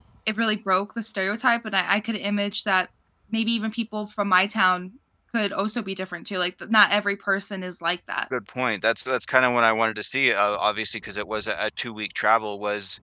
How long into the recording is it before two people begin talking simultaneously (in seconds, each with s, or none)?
none